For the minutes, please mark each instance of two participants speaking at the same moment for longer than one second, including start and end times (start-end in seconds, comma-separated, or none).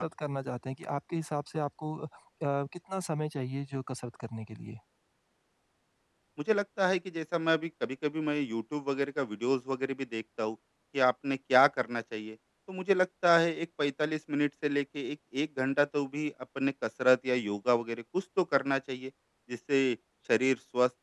none